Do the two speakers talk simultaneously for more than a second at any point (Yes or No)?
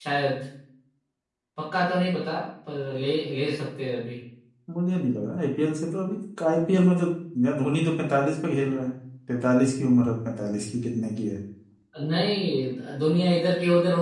No